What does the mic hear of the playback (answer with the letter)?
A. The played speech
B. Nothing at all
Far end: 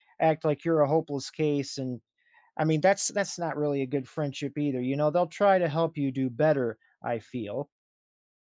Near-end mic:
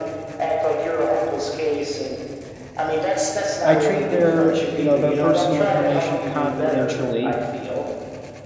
A